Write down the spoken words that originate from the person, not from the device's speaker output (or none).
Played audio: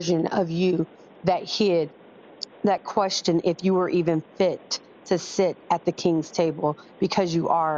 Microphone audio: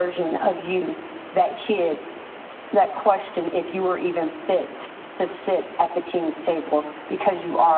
none